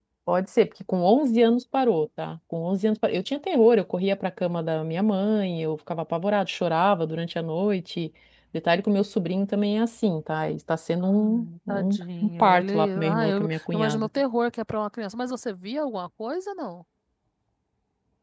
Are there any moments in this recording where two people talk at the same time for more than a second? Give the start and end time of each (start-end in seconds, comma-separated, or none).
11.0-14.1